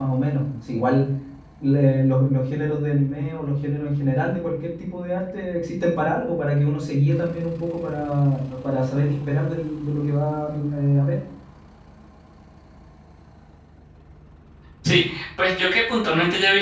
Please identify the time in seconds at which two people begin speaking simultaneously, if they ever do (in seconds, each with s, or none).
none